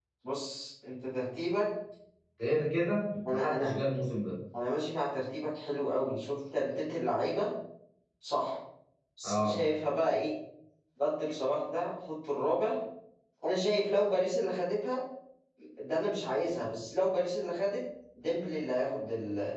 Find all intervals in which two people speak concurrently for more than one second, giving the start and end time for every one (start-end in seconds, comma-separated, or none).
none